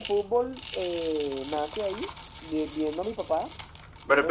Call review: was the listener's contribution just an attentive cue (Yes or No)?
No